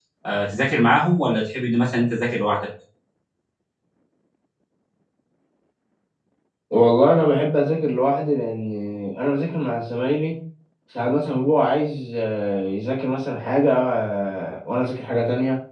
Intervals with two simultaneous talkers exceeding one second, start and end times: none

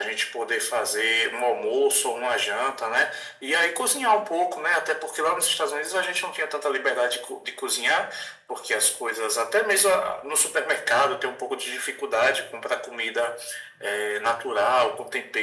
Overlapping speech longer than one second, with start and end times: none

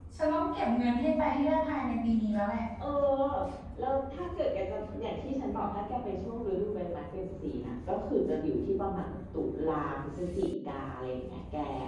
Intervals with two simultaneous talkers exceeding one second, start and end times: none

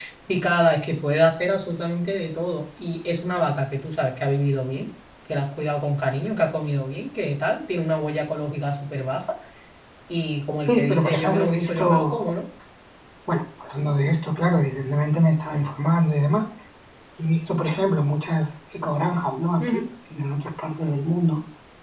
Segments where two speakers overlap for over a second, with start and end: 10.7-12.3

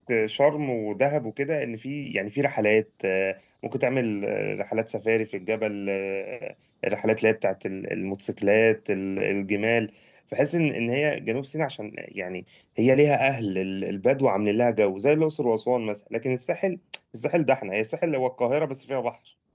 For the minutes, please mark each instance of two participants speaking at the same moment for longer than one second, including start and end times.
none

